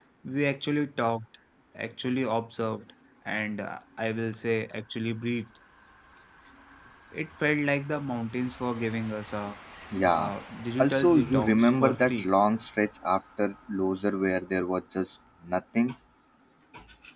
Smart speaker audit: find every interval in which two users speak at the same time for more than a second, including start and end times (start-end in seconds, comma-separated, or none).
10.8-12.3